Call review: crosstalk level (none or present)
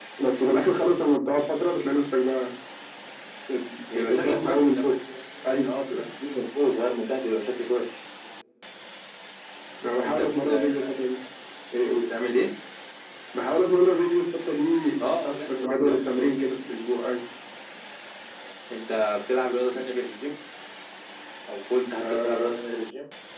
present